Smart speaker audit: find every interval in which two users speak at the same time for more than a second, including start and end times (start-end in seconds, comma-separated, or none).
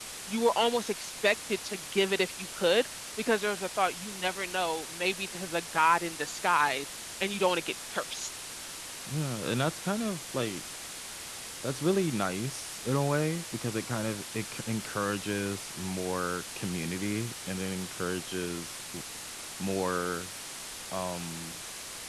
none